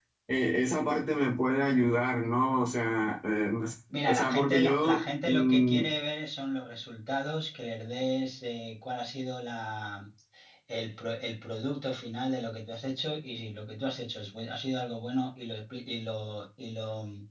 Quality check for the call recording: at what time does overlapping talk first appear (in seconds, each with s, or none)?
3.9 s